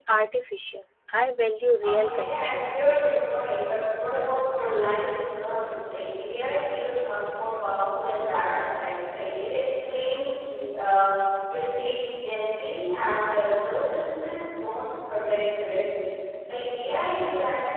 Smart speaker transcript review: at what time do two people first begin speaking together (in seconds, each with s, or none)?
1.8 s